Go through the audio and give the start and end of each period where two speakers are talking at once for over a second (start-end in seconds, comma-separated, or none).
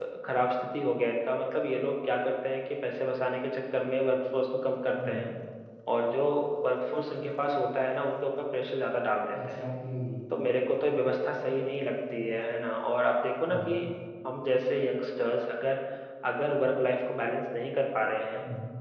none